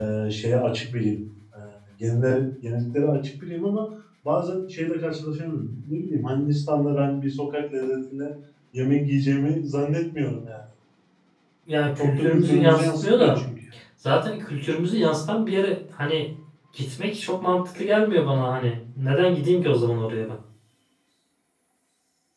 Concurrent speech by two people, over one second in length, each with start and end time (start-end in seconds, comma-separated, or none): 12.0-13.4